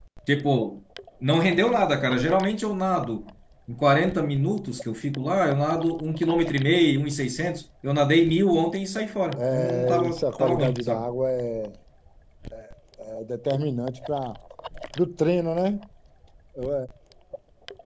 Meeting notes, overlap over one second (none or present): present